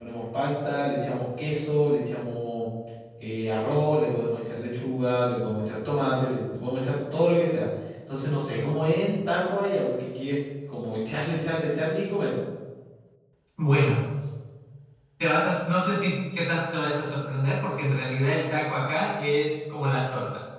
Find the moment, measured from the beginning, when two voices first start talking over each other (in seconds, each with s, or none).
none